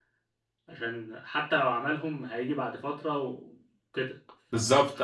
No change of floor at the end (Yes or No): No